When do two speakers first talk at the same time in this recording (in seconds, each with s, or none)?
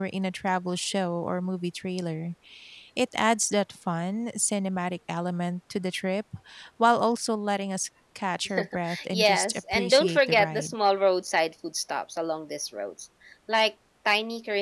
9.1 s